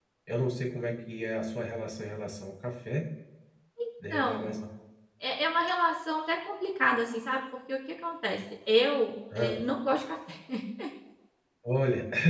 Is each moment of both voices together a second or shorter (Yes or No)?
Yes